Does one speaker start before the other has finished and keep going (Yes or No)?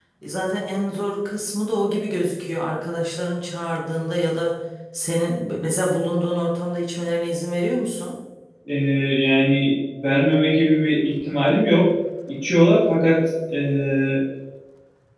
No